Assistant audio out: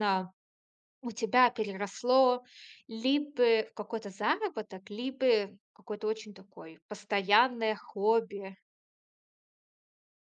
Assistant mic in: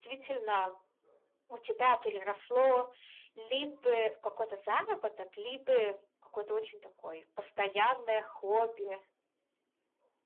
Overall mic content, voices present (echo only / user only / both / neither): echo only